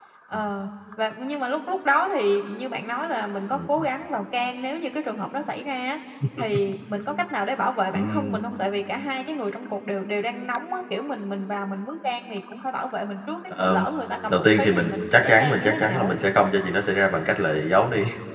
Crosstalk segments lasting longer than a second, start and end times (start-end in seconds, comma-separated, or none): 14.3-16.2